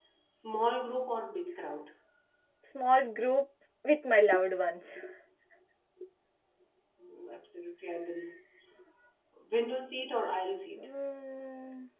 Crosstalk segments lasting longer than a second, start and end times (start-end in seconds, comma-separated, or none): none